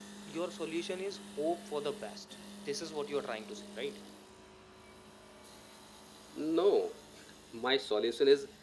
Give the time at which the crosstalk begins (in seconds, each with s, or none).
none